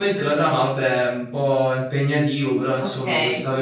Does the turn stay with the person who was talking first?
No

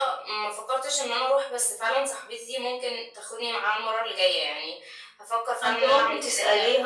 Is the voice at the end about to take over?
Yes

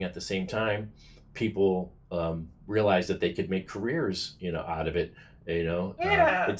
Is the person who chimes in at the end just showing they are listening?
Yes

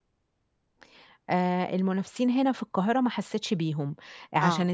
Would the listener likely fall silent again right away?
Yes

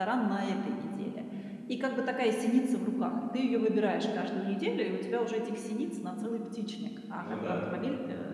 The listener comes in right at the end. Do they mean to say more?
No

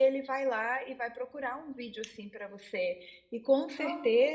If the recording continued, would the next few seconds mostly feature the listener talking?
No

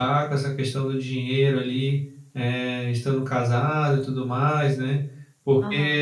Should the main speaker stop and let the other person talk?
No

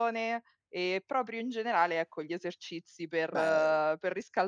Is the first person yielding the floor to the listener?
No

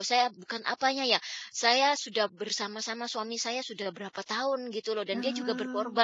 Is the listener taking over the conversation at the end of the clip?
No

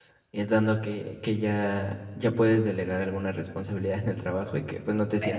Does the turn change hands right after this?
No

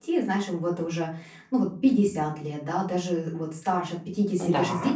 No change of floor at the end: Yes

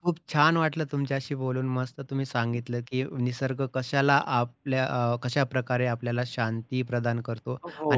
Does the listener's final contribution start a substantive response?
No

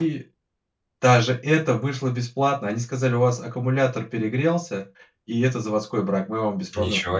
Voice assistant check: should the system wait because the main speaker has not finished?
No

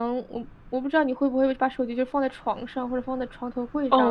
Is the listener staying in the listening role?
No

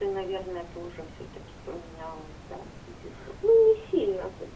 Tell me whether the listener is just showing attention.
No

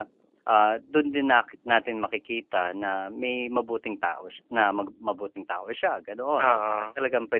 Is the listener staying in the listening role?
Yes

